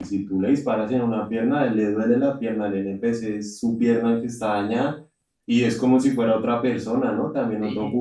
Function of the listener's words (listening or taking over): taking over